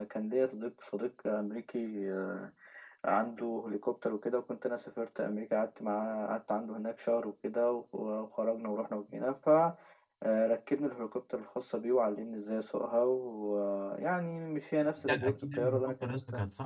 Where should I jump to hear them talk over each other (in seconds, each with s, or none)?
15.0 s